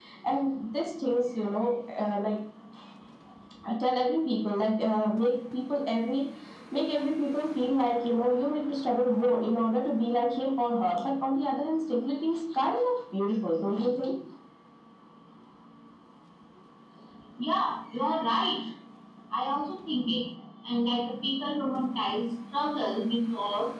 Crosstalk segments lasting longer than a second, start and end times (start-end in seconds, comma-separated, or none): none